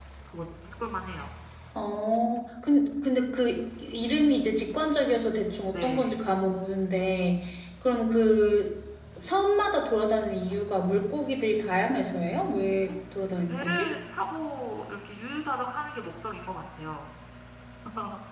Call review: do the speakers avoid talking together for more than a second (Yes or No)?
Yes